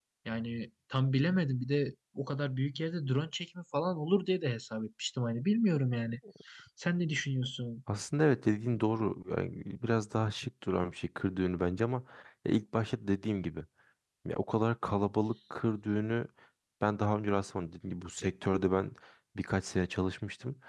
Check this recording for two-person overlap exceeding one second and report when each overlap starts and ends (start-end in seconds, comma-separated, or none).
none